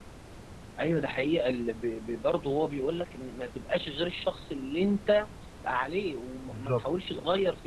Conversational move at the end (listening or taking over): listening